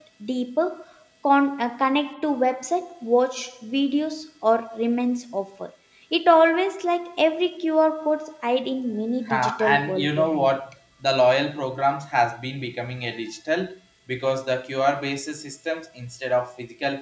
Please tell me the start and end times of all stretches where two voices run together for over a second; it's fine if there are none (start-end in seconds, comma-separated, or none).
9.3-10.6